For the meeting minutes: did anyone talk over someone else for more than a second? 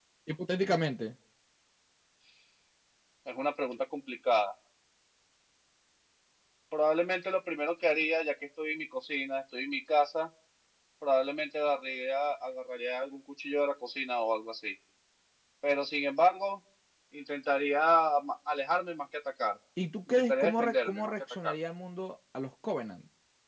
Yes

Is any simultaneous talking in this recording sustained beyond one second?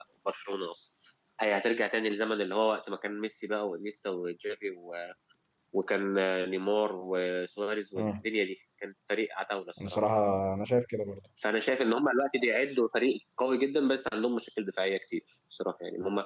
No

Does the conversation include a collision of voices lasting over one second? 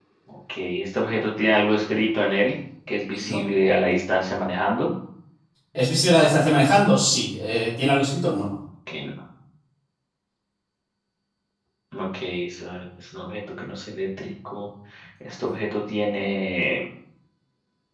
No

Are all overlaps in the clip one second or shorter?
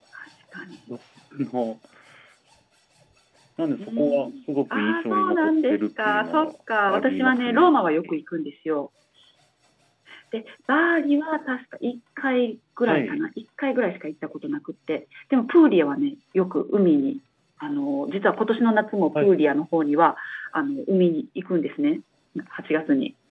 No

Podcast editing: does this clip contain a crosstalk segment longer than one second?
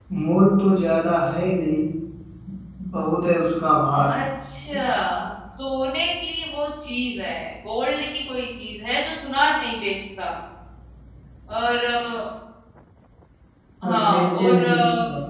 Yes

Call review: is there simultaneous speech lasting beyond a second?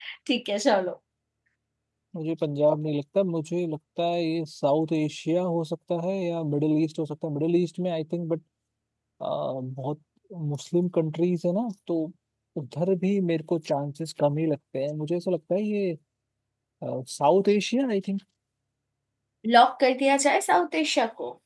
No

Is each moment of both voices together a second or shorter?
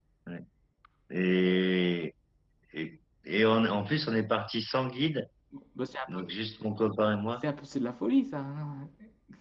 Yes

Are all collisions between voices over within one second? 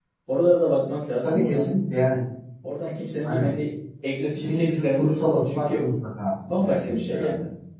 No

